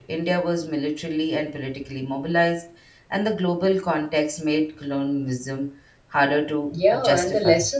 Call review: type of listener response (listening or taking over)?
taking over